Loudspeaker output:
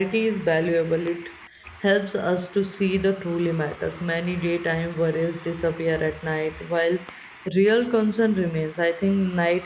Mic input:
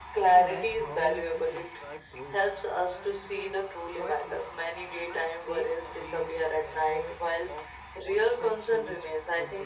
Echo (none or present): present